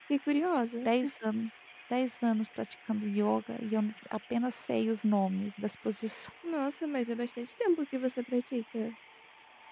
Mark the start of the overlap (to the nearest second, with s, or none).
none